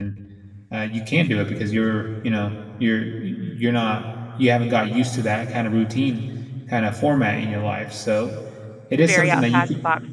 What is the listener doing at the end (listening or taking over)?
taking over